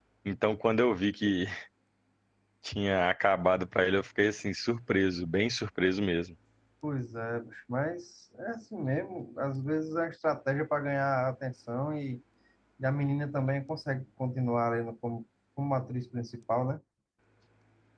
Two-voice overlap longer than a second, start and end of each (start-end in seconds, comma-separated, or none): none